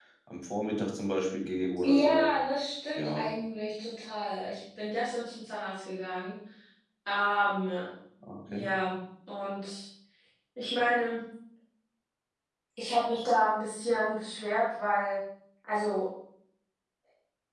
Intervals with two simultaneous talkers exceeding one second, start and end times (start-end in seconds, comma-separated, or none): none